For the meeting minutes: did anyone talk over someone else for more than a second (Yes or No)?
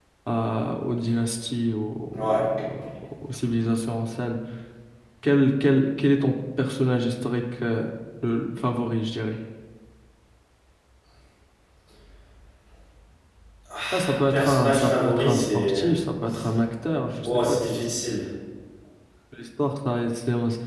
Yes